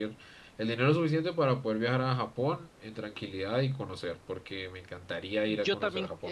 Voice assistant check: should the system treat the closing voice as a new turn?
Yes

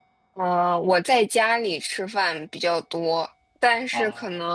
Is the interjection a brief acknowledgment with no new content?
Yes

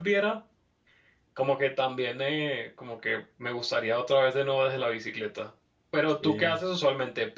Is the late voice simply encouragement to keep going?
Yes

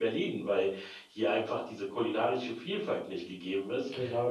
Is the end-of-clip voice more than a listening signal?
Yes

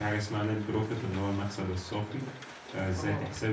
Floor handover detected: No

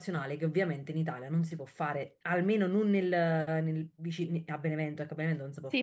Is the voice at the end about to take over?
Yes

